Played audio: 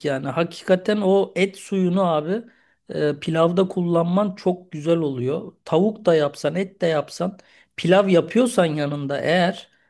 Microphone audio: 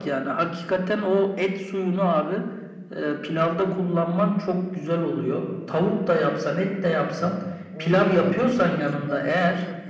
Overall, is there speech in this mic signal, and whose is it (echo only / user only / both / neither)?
both